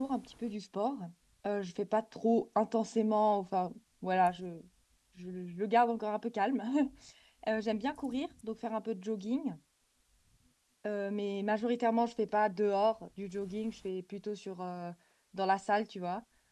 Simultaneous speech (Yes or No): No